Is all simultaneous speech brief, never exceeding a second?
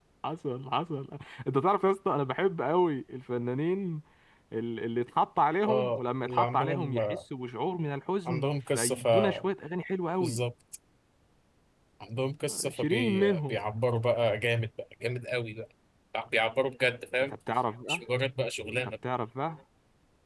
No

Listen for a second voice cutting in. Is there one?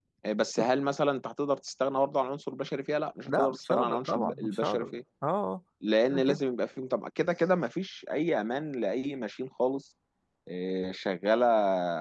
Yes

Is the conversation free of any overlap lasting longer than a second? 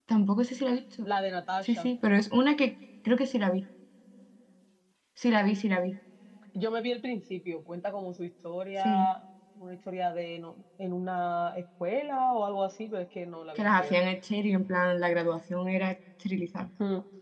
Yes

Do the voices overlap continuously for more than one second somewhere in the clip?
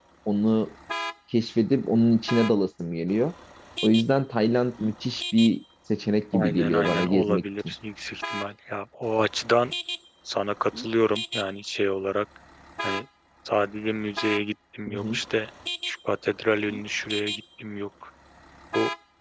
Yes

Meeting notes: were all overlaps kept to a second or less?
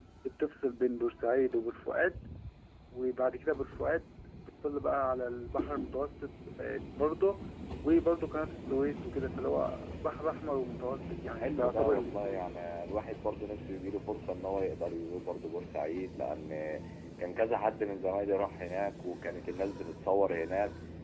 No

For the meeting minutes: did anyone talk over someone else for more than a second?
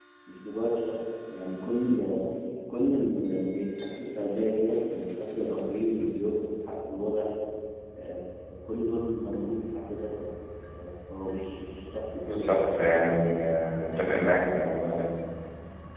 No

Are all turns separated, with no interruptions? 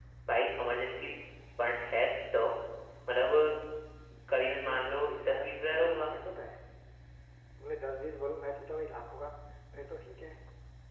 No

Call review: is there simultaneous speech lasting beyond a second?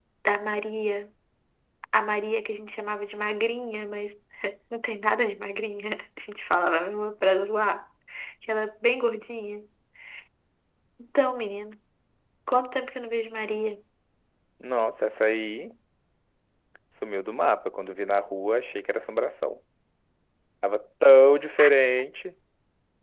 No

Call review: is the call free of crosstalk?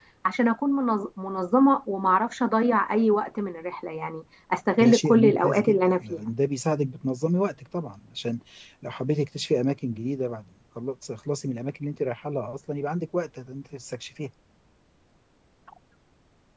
No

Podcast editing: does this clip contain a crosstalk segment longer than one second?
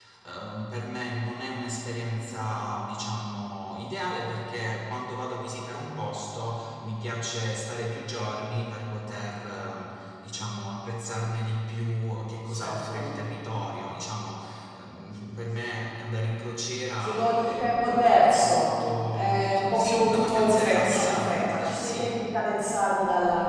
Yes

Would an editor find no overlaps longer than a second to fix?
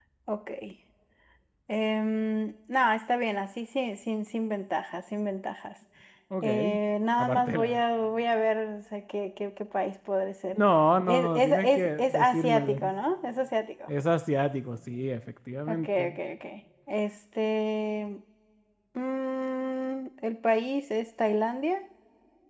No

